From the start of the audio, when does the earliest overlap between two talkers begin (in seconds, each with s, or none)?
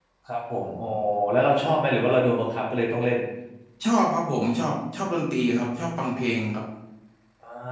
none